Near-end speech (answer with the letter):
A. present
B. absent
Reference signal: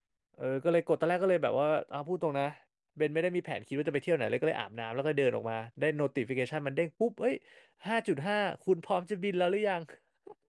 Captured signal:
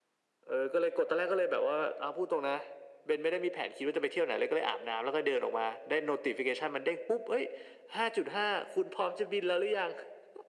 B